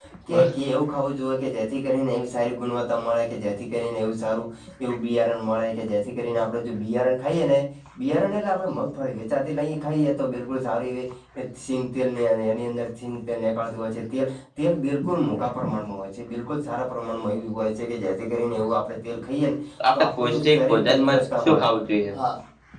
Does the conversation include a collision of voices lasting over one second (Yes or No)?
Yes